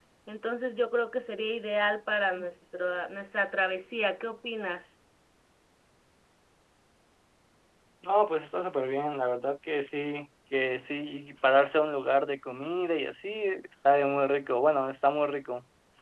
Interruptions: none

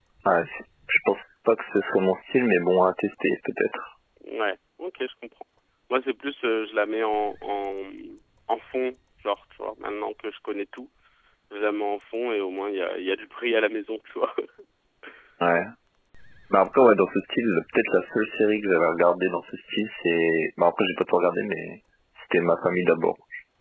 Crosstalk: none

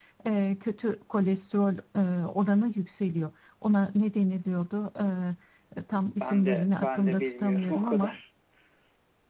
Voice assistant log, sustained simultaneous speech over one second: present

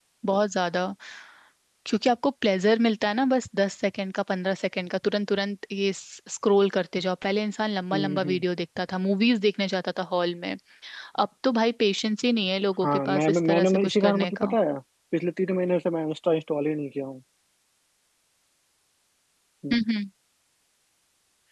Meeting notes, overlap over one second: present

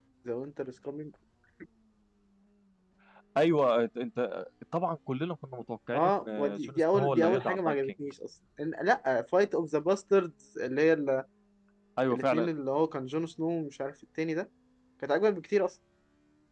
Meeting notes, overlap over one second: present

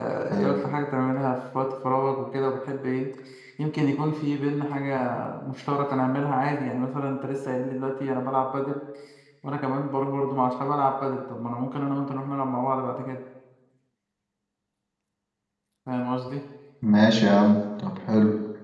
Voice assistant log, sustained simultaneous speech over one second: none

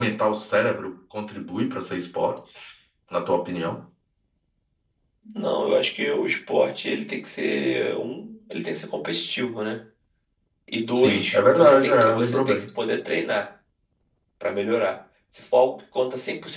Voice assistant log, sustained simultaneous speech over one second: present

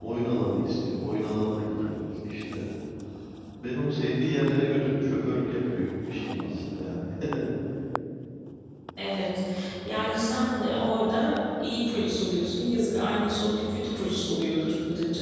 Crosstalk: none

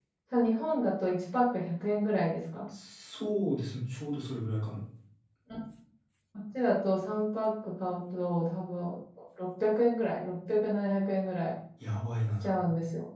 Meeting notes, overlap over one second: none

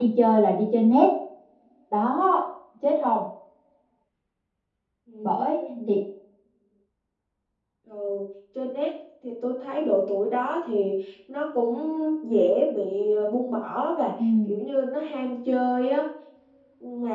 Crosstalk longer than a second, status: none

